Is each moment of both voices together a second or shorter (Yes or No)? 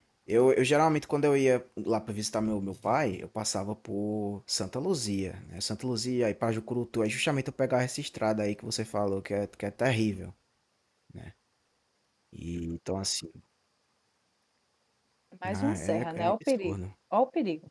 No